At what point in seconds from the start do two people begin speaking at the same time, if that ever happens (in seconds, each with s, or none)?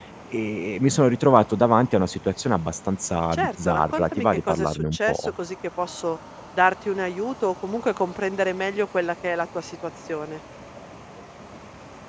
3.3 s